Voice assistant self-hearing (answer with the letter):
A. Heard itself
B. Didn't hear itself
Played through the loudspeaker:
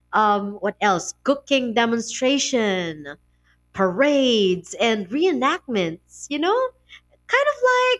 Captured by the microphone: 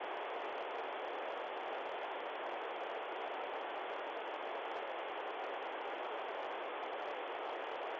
B